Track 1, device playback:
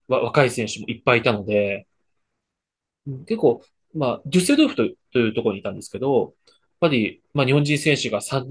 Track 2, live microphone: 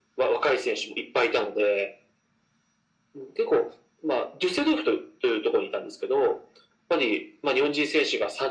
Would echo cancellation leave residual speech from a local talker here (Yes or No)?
No